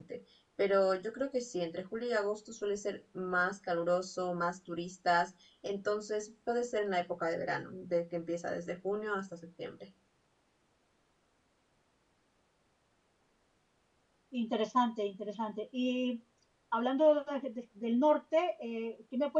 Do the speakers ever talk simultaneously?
No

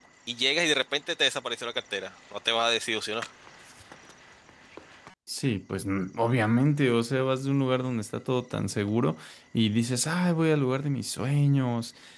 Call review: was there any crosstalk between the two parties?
No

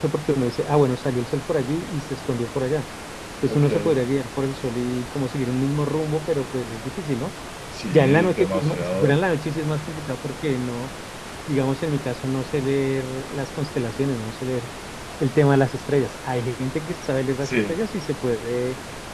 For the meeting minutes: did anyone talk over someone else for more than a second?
Yes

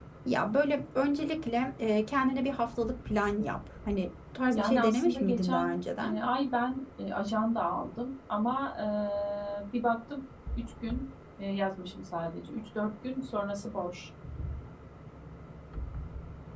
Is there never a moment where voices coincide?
No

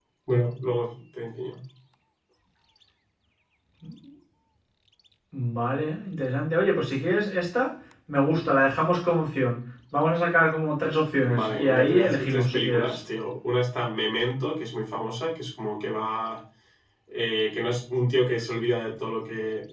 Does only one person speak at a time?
No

